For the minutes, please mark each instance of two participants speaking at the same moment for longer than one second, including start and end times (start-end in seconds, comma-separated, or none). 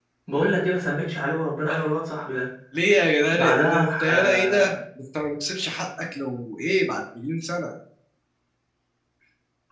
3.3-4.7